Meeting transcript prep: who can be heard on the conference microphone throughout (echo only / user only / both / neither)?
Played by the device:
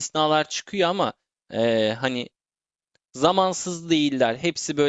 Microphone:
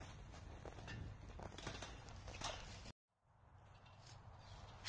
neither